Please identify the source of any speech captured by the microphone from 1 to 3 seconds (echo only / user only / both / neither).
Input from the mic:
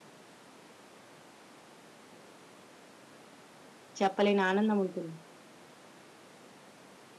neither